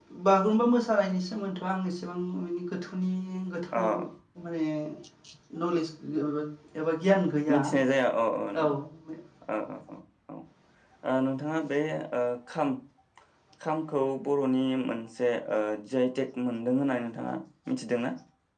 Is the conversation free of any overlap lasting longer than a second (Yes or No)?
Yes